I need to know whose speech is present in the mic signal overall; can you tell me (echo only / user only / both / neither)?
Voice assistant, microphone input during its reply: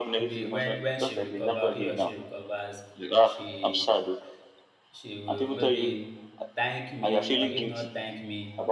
both